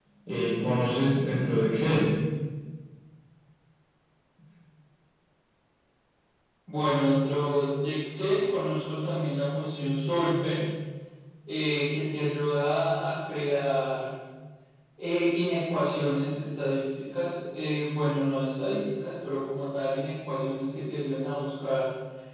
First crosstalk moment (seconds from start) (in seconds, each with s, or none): none